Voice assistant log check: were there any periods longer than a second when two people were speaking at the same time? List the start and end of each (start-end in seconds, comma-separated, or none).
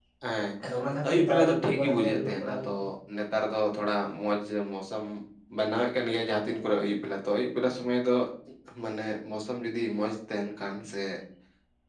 1.1-2.8